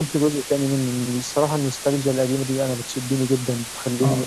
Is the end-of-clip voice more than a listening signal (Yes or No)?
Yes